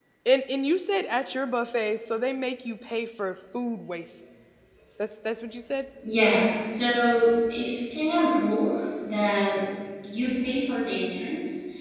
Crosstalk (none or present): none